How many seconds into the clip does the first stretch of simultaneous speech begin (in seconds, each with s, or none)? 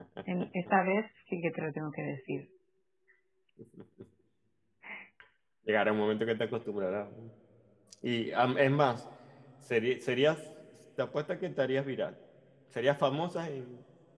none